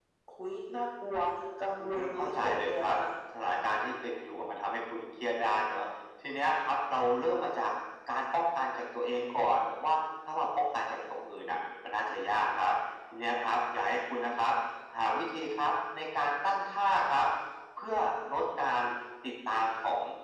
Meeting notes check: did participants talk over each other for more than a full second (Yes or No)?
Yes